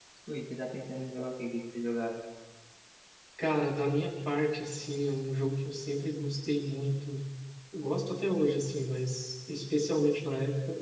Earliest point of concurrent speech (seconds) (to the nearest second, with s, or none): none